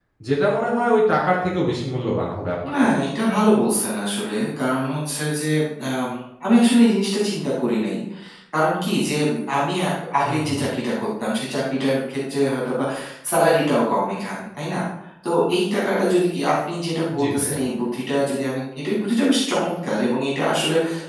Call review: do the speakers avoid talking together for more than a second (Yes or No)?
Yes